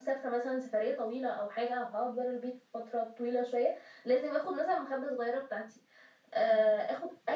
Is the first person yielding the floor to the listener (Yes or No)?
No